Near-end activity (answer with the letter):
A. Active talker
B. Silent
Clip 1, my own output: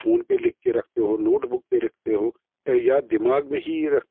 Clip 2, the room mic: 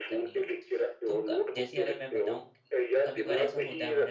A